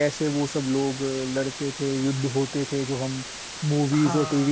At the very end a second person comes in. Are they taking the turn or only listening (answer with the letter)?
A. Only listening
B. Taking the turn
B